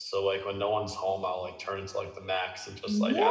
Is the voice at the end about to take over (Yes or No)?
Yes